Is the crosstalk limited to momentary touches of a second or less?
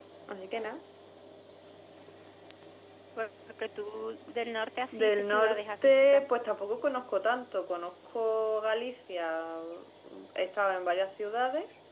No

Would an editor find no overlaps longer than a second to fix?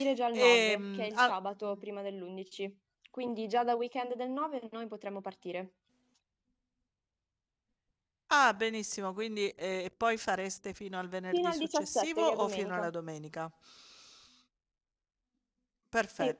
No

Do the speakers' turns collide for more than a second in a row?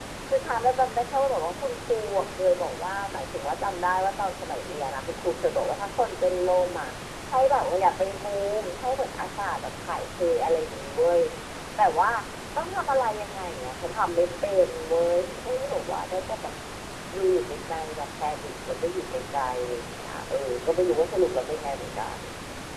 No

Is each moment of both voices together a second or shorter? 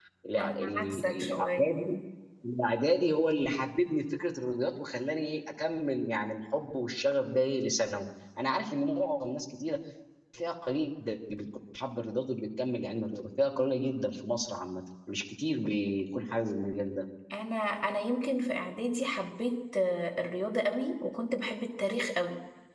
No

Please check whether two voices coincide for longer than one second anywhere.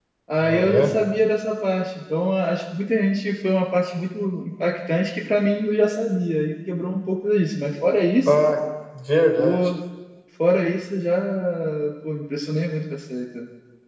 No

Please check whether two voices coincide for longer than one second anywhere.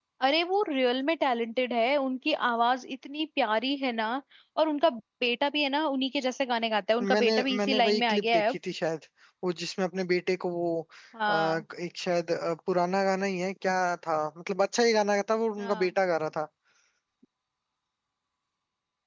Yes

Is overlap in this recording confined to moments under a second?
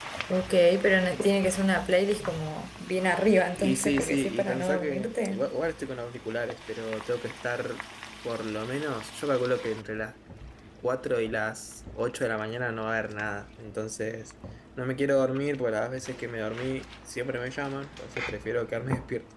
No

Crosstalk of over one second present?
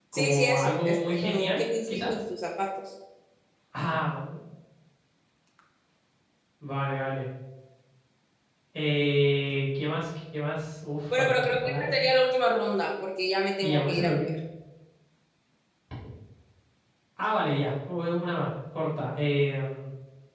Yes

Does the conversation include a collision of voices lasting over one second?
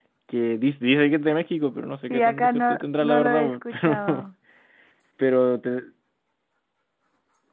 Yes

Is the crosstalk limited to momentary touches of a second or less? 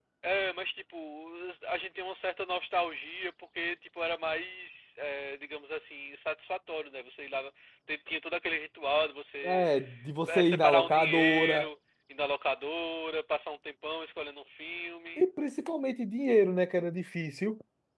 No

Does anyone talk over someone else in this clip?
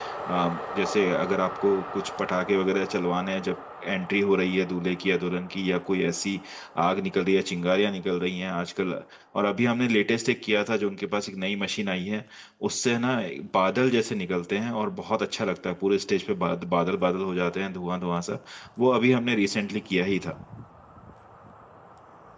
No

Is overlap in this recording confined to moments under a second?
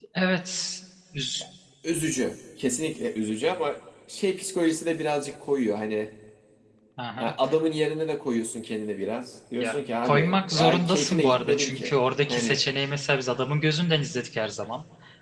No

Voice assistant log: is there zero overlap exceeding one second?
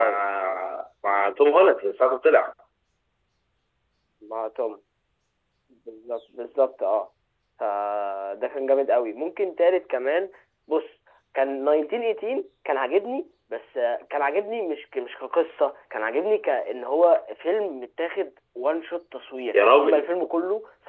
Yes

